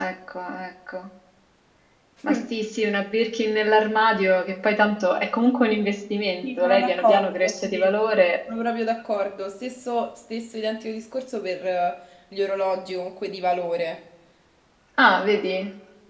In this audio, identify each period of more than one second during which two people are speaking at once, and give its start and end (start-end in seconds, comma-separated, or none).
6.4-7.9